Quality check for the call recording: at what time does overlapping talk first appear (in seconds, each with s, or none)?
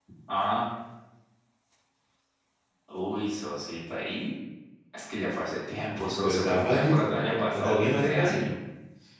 6.2 s